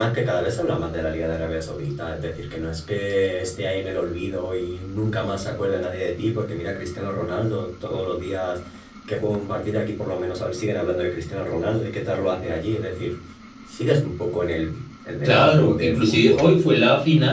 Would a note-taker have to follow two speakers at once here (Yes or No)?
Yes